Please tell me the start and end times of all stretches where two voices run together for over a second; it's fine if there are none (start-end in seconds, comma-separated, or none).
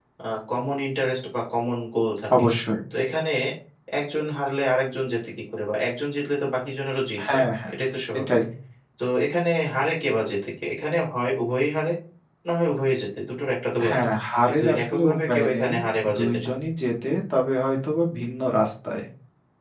14.5-15.7